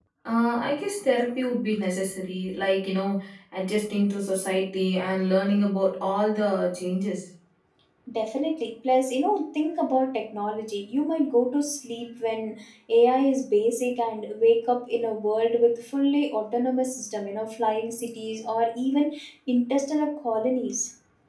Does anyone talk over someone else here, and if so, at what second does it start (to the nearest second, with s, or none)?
none